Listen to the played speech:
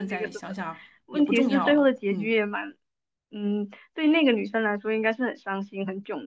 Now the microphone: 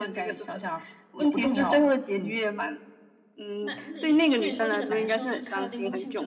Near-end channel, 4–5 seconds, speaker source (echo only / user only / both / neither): both